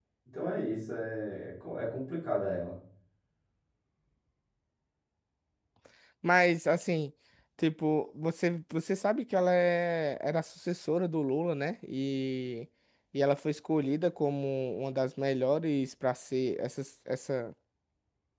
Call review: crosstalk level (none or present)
none